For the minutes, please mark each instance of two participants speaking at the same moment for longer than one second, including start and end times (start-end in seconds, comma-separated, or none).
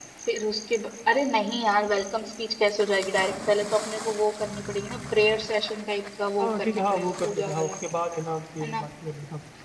6.4-7.7